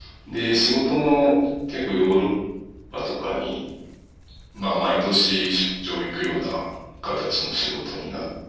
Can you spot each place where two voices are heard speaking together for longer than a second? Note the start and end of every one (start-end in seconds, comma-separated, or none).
none